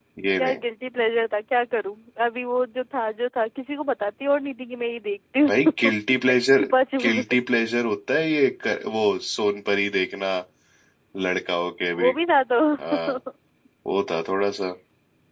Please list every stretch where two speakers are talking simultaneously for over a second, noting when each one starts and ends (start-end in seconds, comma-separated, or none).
none